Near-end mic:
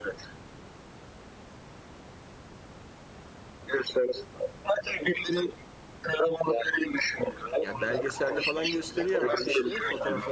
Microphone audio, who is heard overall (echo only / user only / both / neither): both